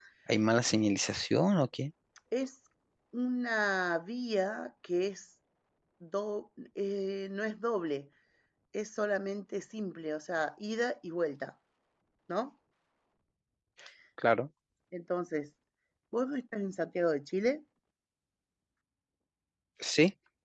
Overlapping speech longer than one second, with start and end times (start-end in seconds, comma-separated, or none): none